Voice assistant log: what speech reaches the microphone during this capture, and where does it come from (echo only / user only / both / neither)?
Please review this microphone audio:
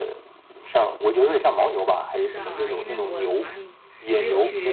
both